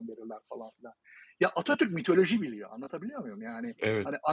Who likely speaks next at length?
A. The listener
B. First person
B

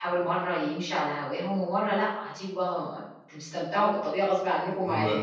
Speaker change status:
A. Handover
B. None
A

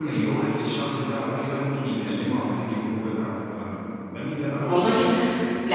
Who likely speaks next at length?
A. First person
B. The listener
B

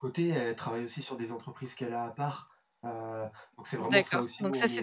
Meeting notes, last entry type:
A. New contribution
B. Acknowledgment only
A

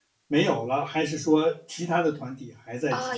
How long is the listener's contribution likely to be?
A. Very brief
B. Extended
B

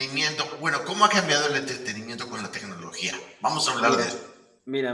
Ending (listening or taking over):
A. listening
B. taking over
B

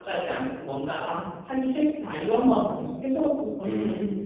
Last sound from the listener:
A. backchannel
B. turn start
B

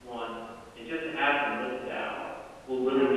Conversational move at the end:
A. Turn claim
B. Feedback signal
B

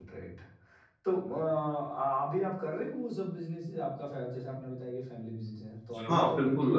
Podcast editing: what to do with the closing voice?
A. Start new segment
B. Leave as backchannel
A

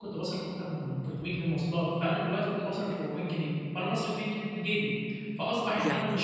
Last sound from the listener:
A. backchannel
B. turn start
A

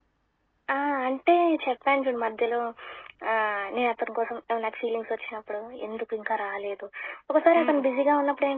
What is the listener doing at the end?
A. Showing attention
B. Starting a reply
A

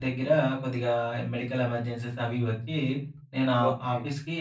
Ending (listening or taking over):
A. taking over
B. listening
B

